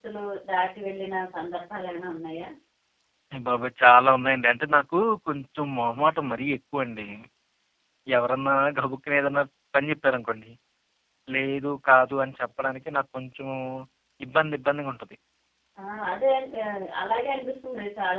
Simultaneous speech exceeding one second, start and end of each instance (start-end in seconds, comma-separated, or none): none